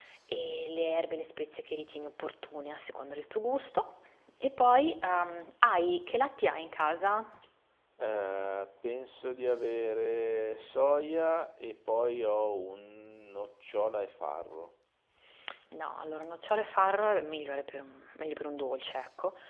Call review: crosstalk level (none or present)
none